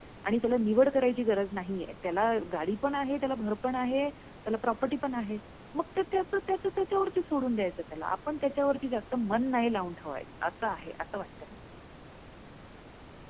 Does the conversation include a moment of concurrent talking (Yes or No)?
No